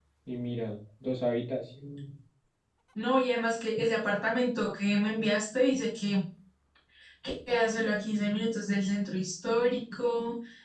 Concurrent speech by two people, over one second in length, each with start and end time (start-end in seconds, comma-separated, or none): none